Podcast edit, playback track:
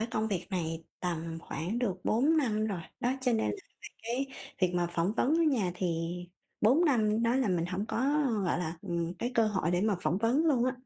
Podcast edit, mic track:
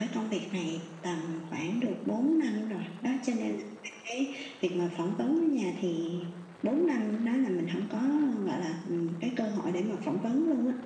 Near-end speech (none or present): none